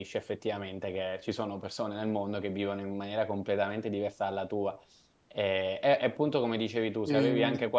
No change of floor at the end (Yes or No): Yes